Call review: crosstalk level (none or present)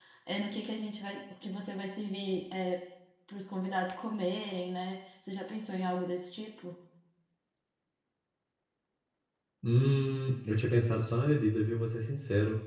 none